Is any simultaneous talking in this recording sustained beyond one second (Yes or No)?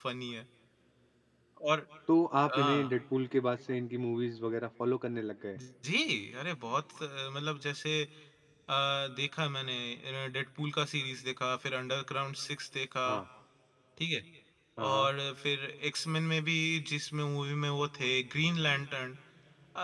No